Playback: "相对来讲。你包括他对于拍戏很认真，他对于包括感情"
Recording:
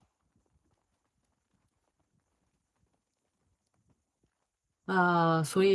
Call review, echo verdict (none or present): none